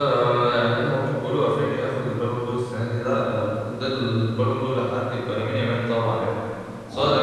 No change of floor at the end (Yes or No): Yes